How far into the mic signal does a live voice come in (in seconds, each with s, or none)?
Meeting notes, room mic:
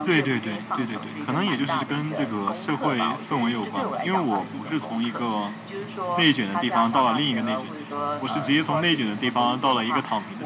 none